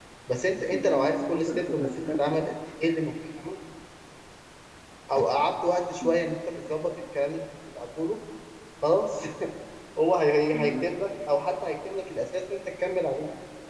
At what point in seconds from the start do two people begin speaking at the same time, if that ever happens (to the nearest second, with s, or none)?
1 s